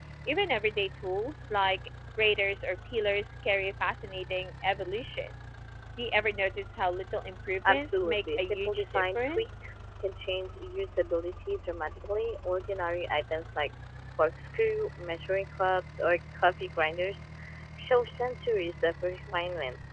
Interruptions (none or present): present